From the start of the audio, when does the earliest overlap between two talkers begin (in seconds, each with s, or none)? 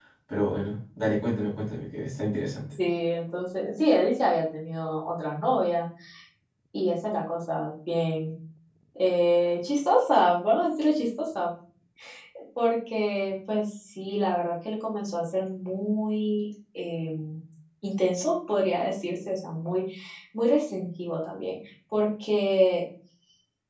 none